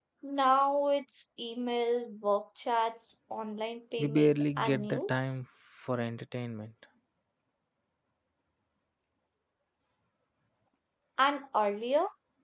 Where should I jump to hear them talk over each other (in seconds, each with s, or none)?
4.0 s